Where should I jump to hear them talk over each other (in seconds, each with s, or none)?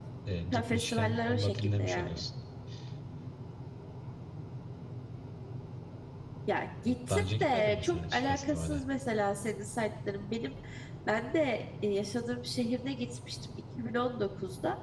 0.5 s